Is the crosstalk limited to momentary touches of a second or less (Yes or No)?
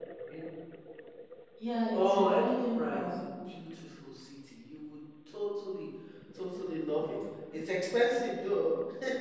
No